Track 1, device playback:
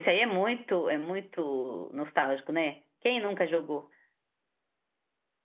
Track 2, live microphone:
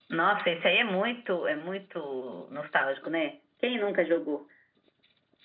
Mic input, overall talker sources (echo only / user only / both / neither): echo only